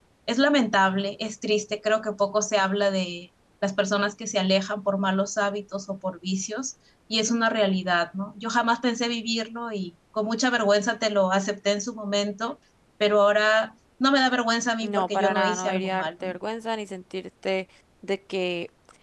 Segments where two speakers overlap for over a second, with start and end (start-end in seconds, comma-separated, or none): 14.8-16.3